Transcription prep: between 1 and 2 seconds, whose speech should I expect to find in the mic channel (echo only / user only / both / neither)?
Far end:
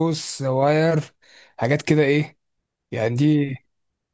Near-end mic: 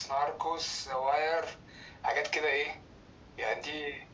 echo only